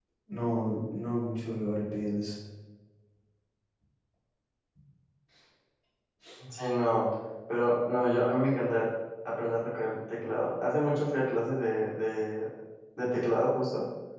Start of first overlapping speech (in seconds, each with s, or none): none